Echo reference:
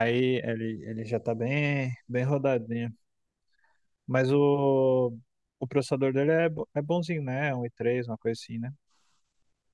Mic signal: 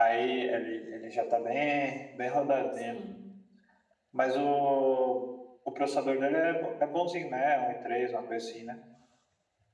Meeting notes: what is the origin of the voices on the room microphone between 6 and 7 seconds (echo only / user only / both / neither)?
echo only